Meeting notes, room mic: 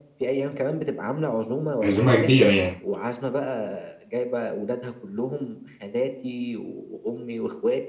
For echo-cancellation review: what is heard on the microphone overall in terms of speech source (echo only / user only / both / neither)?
both